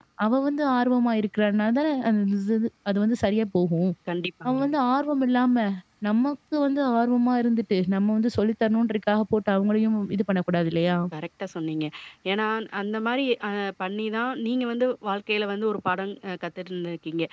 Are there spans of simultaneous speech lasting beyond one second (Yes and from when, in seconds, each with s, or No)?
No